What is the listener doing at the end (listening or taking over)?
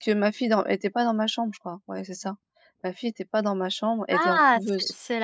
taking over